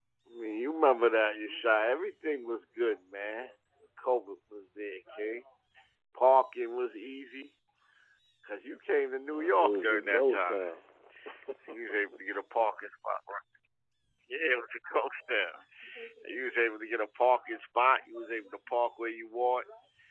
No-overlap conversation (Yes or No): No